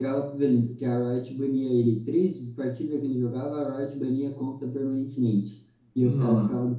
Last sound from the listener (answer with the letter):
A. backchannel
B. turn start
A